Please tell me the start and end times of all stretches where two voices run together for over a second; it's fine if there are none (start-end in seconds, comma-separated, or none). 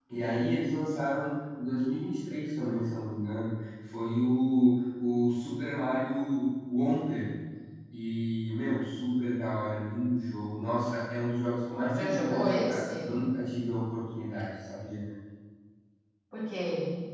11.9-13.1